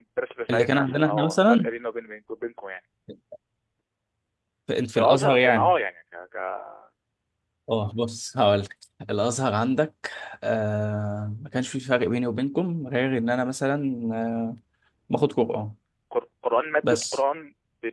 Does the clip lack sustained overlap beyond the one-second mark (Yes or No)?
No